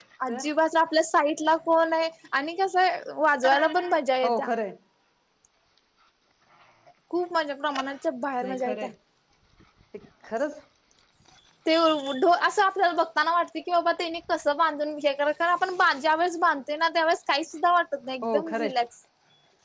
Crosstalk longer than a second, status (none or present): none